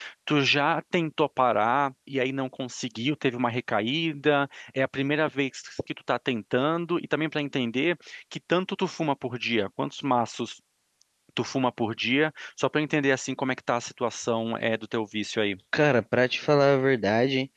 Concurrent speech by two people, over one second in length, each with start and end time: none

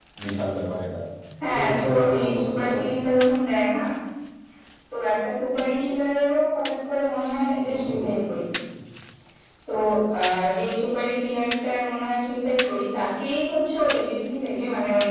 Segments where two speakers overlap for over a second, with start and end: 1.5-2.9

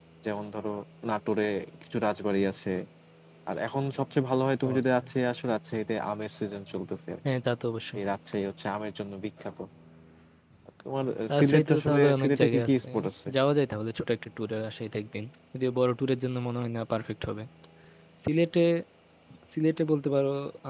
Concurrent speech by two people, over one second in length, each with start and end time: 11.3-12.8

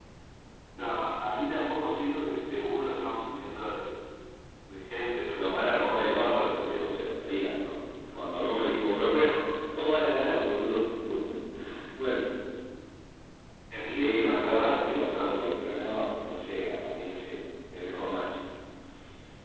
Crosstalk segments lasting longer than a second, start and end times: 5.3-6.9, 13.9-15.4

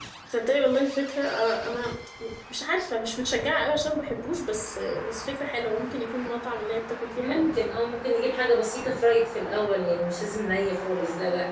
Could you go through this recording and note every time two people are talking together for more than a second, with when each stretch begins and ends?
none

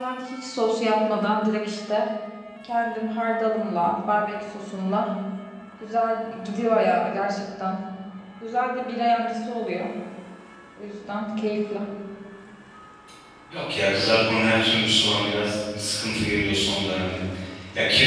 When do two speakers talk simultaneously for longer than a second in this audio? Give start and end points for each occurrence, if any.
none

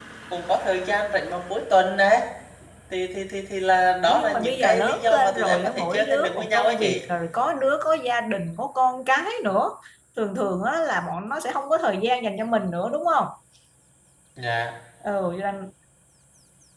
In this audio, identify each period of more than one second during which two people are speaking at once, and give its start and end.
4.1-7.0

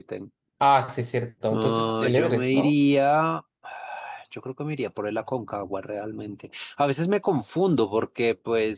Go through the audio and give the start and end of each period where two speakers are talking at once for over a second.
1.5-2.7

